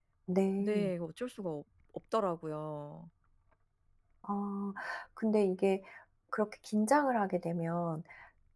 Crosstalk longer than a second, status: none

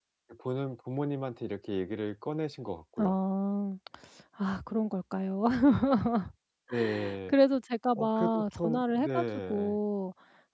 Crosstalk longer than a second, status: present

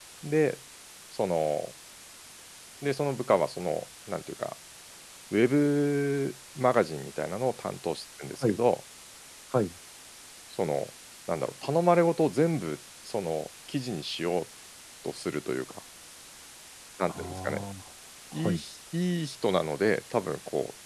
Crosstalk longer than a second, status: none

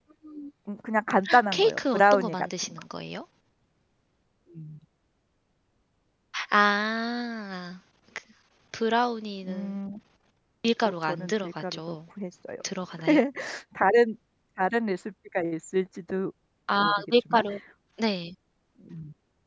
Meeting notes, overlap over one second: present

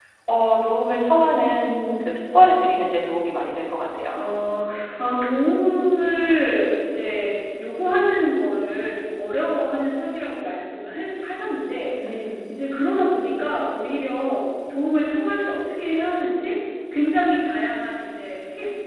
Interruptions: none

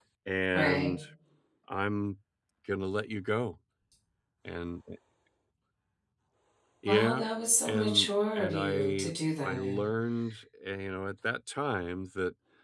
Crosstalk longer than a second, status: present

